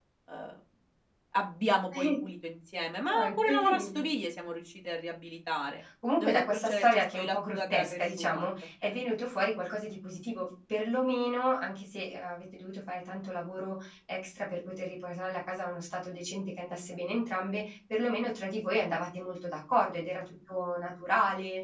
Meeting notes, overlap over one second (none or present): present